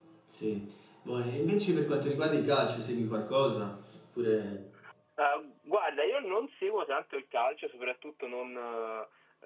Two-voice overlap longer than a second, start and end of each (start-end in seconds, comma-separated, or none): none